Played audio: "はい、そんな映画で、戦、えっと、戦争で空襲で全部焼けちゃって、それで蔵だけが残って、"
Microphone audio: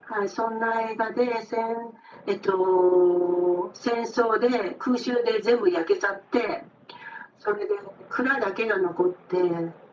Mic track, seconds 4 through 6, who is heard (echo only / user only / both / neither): echo only